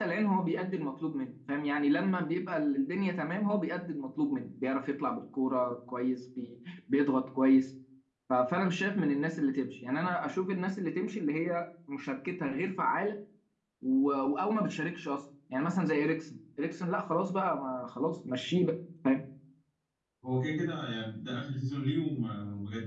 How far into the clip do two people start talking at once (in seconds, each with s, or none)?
none